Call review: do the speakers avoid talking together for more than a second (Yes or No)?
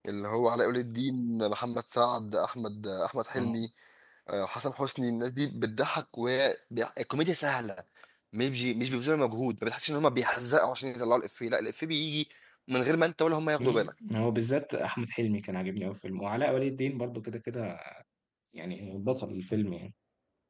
Yes